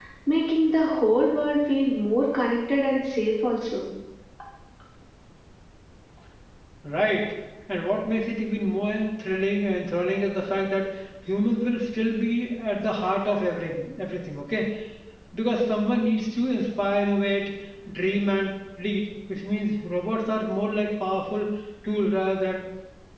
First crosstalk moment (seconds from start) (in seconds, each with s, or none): none